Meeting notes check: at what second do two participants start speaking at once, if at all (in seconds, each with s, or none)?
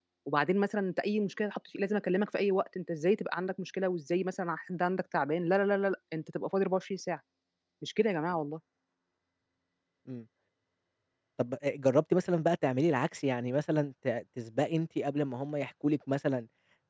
none